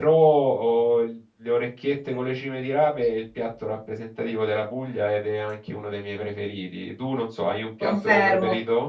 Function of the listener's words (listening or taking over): taking over